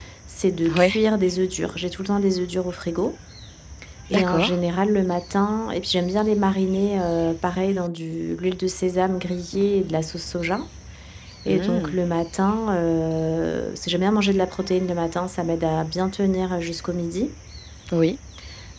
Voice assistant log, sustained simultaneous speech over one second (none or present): none